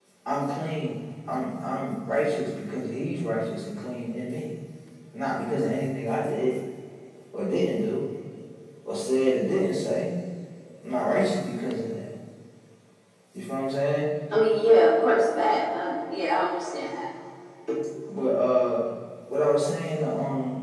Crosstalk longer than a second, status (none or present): none